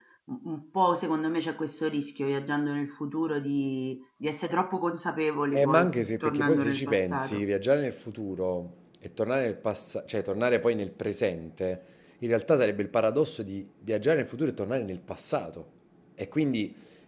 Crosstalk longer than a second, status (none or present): present